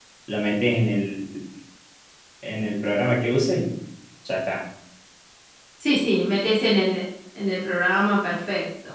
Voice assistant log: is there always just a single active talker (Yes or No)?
Yes